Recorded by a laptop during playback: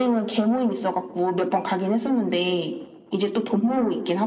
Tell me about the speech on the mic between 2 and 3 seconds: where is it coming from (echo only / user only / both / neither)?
echo only